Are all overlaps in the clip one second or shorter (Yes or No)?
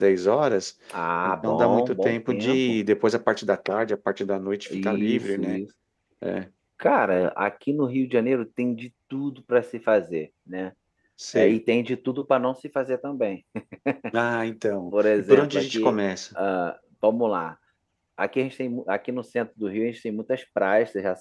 No